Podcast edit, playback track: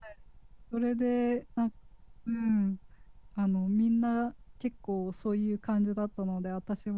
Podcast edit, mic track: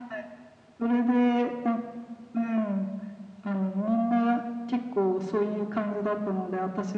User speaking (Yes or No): No